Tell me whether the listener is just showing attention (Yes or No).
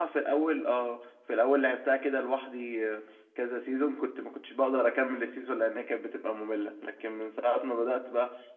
Yes